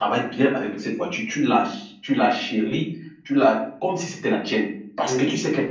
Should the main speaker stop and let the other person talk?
No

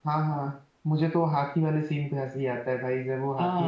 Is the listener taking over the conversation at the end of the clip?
Yes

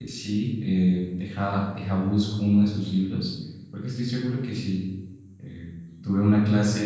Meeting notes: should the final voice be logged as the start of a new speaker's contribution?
No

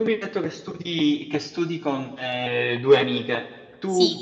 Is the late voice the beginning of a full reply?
No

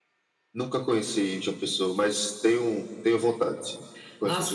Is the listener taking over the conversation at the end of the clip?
Yes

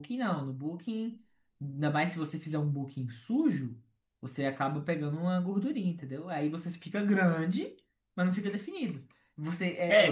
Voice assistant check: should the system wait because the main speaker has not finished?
No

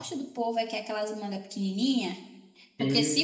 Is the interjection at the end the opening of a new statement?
No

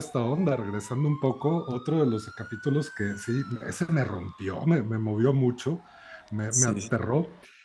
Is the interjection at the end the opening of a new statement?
No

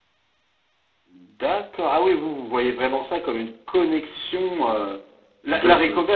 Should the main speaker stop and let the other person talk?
No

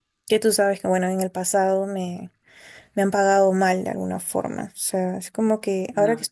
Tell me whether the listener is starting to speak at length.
No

